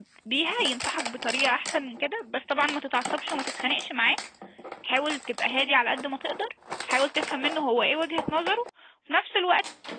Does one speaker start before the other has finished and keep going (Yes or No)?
No